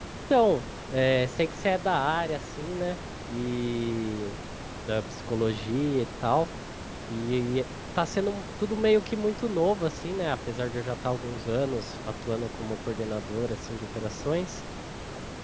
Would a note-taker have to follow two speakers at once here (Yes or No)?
No